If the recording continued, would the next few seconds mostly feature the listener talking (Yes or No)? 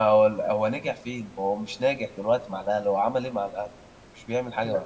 Yes